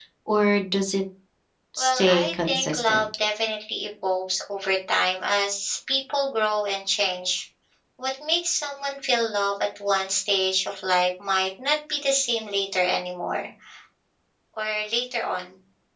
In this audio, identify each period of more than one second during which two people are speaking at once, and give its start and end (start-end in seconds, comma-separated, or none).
1.8-3.0